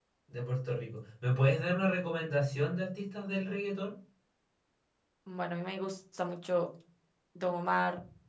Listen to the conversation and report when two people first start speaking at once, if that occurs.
none

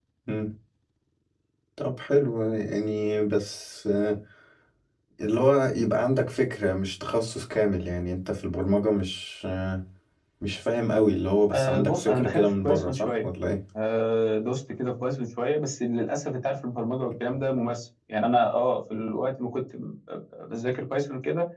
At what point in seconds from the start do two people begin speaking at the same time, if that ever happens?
11 s

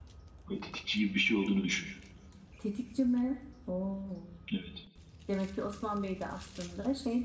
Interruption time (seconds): none

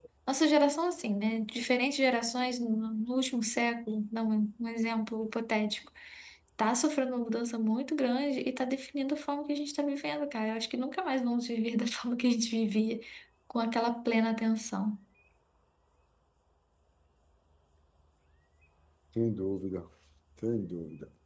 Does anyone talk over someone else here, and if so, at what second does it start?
none

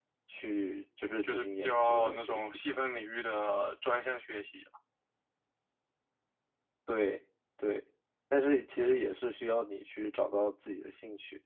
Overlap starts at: 1 s

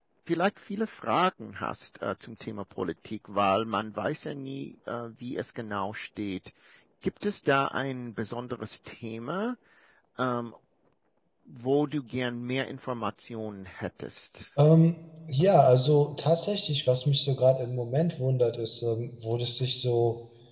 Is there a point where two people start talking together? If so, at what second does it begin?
none

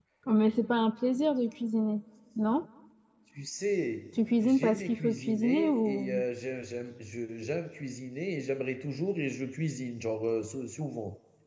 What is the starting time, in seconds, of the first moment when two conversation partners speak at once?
4 s

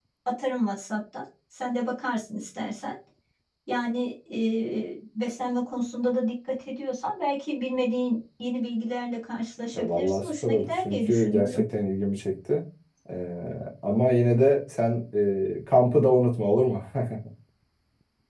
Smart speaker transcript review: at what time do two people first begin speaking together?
10 s

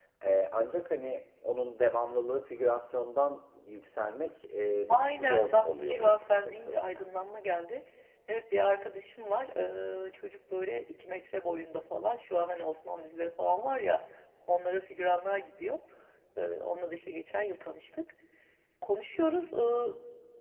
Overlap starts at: 5 s

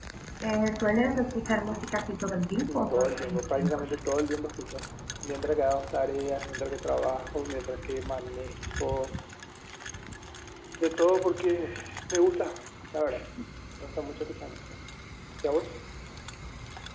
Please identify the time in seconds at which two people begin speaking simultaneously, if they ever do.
3 s

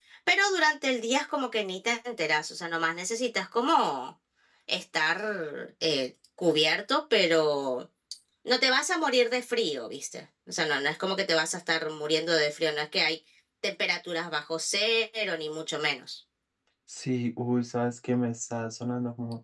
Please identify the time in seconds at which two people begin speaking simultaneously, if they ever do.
none

